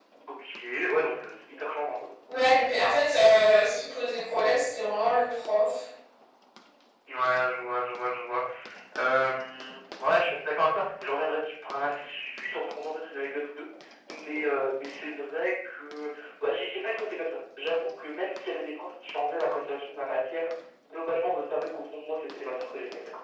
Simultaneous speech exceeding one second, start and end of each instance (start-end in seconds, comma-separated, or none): none